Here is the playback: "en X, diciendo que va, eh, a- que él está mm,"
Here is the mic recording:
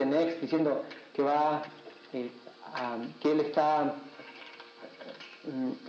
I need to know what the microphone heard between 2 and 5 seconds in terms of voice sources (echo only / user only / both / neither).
echo only